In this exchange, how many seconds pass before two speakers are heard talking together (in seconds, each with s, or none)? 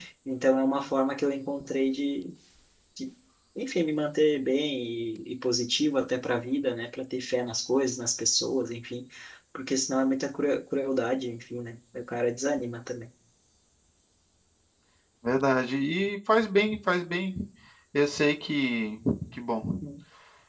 none